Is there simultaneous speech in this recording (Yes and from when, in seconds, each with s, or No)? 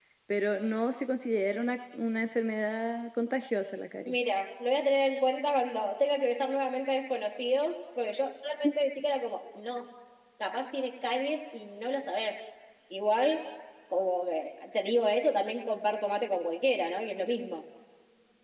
No